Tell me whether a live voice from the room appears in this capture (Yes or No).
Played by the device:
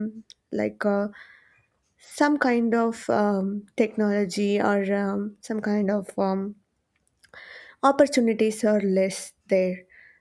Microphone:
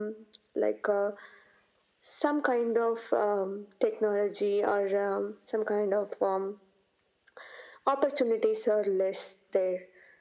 No